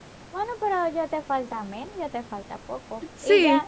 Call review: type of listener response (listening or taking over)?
listening